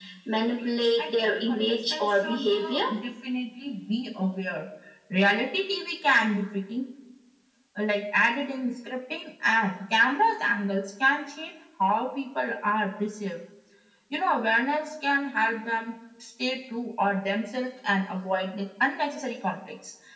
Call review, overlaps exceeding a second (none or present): present